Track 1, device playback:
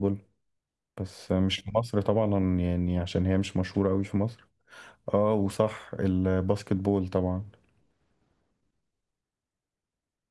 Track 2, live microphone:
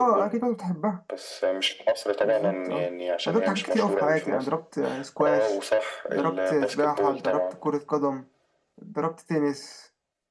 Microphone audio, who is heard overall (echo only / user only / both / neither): both